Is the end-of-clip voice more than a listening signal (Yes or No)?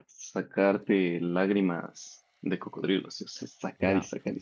Yes